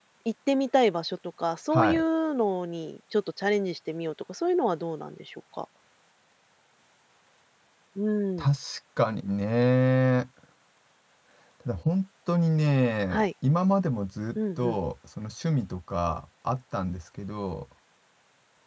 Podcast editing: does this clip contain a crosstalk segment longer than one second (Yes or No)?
No